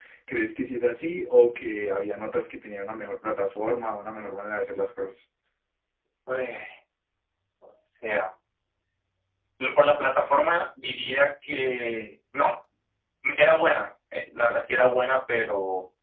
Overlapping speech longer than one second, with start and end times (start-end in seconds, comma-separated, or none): none